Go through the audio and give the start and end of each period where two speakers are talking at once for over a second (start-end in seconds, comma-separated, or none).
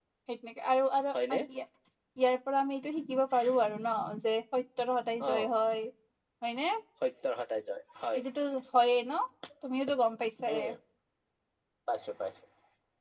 none